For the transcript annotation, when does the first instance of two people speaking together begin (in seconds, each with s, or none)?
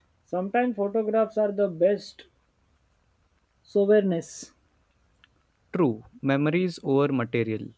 none